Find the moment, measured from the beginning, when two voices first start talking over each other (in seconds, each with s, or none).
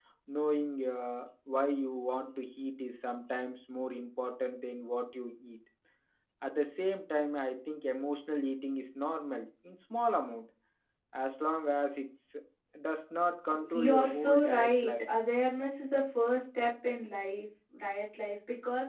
13.7 s